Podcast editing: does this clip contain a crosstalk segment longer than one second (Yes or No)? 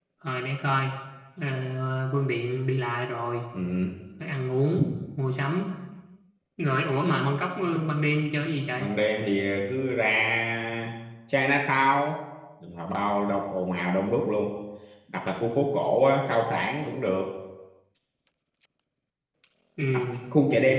No